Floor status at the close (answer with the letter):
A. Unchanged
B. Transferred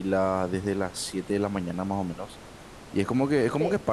A